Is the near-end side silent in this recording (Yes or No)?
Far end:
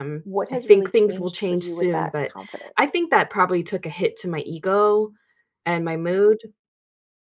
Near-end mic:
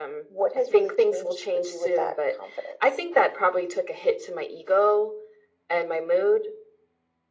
Yes